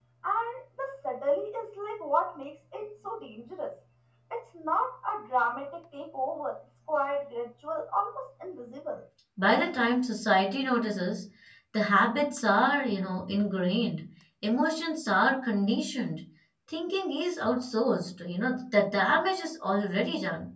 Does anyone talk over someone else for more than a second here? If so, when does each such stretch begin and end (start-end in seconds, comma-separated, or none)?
none